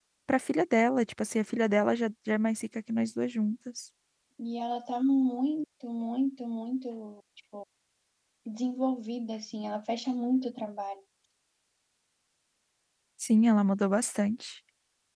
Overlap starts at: none

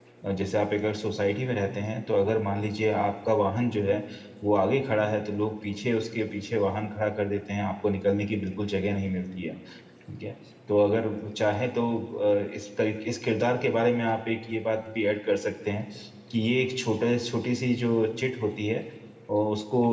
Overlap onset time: none

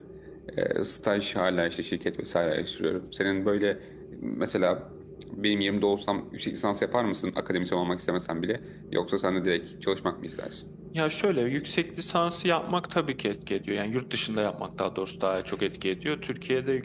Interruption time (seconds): none

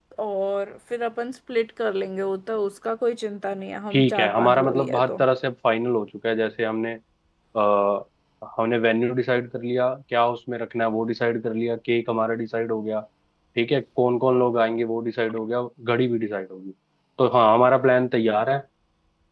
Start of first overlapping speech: 4 s

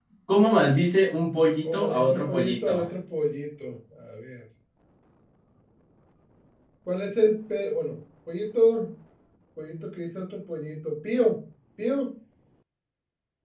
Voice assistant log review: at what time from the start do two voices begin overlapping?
2 s

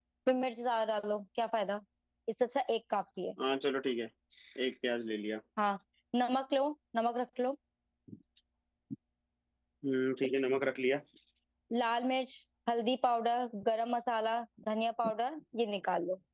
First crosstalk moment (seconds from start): none

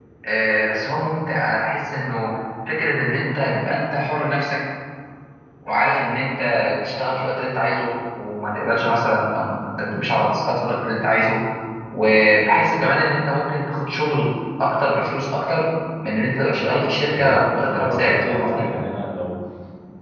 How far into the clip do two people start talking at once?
17 s

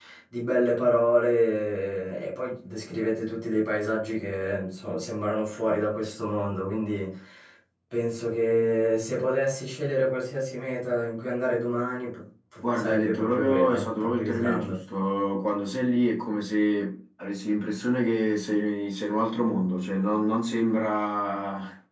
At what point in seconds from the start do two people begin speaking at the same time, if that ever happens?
13 s

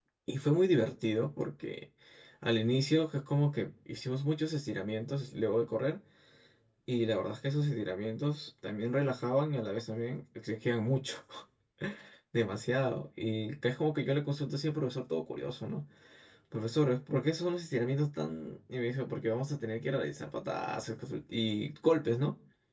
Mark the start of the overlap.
none

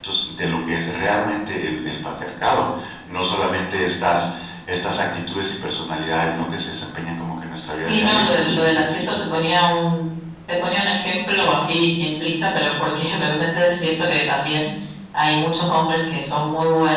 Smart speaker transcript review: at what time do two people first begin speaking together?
8 s

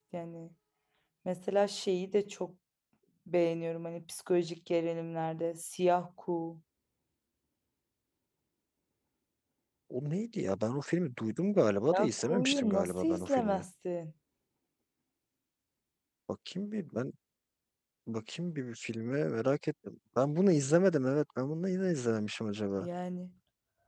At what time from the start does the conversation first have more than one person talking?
12 s

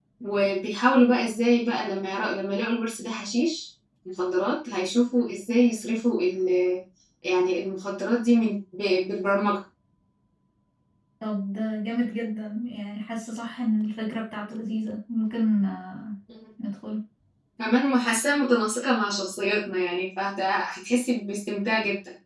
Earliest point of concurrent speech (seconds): none

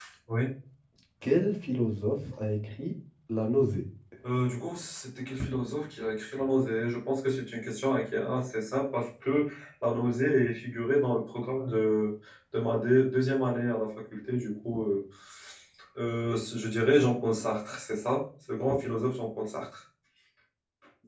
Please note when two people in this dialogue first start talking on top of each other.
none

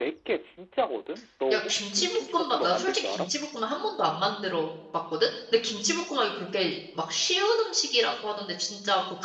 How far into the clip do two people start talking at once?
2 s

